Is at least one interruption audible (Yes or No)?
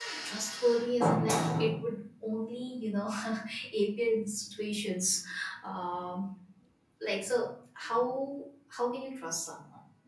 No